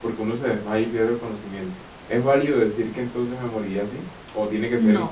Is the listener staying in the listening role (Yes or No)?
No